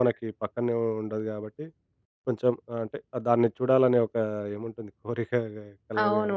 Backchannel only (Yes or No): No